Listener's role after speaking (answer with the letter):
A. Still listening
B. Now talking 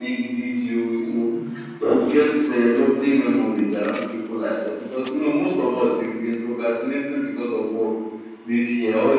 A